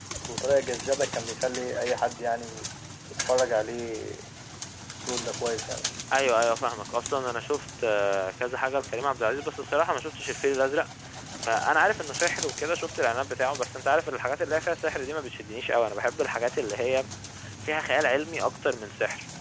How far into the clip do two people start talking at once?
none

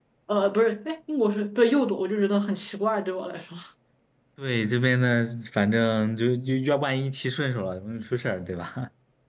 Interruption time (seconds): none

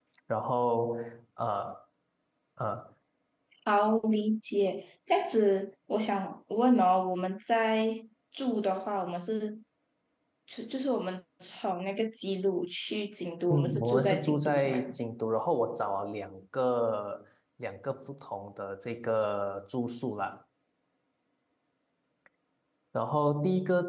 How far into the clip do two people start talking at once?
13.5 s

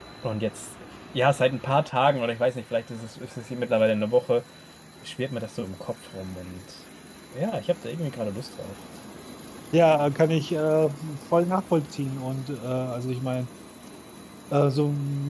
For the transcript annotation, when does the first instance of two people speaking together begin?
none

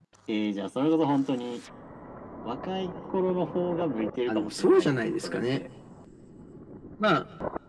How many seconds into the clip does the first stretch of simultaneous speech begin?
4.3 s

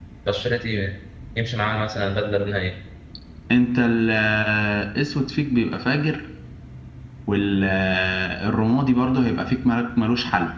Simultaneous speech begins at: none

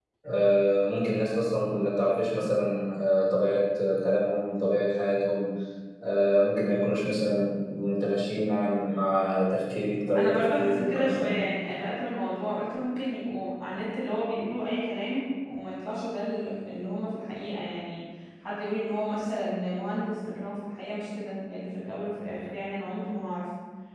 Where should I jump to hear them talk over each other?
10.1 s

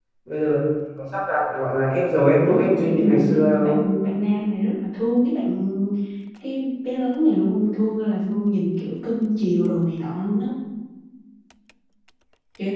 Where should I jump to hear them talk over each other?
2.4 s

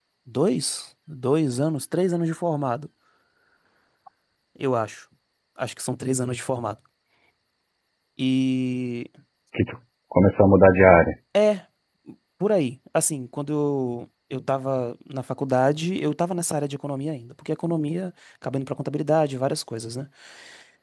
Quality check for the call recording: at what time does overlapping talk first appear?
none

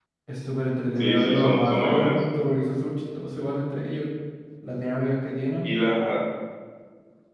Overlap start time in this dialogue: 1.0 s

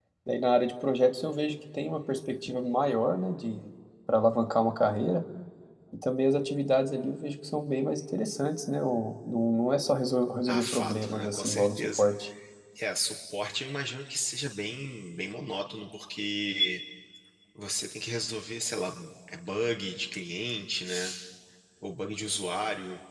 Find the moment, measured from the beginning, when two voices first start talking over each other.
10.5 s

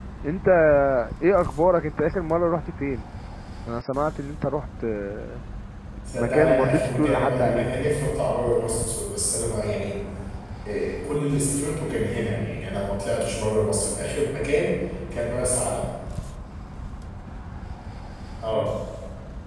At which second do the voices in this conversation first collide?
6.2 s

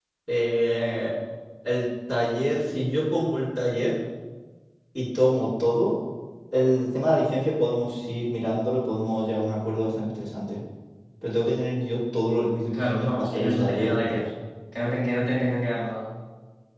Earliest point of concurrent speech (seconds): 12.7 s

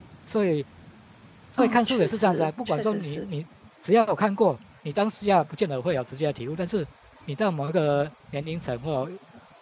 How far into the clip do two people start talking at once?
1.6 s

